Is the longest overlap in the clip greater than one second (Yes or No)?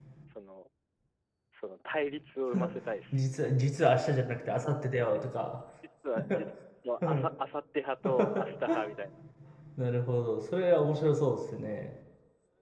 No